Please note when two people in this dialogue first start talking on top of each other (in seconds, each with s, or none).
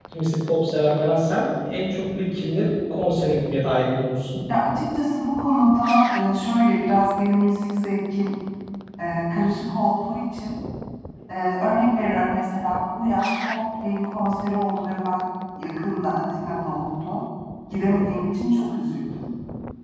none